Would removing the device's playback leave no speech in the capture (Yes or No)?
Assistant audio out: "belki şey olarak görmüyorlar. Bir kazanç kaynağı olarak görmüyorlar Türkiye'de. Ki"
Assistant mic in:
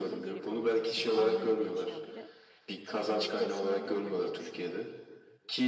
No